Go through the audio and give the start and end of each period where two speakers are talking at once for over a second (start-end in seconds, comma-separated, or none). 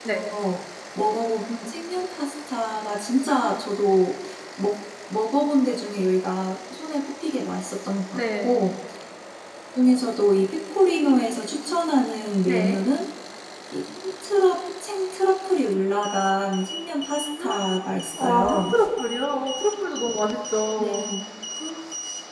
none